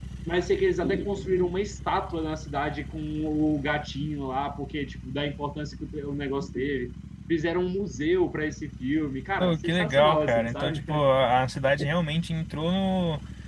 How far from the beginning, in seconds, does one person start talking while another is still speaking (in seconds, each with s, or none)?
9.4 s